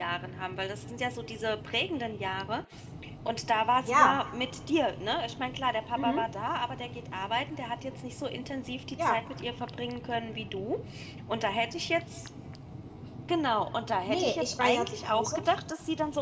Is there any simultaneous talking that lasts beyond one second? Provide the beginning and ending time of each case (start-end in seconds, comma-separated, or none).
14.1-15.4